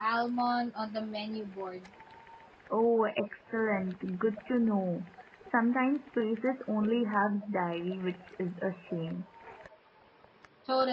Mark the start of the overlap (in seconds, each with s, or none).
none